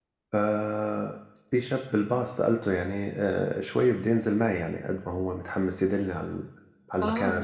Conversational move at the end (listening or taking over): taking over